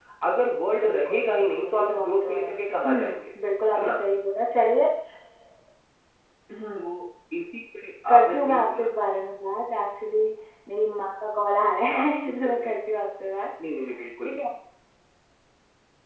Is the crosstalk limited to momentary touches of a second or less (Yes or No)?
No